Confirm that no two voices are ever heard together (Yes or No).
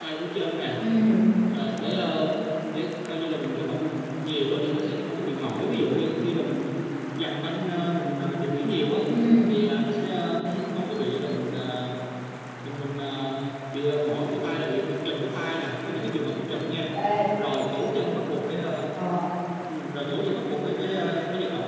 Yes